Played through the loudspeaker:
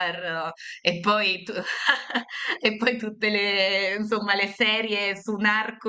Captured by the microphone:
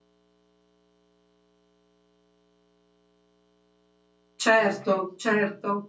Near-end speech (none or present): present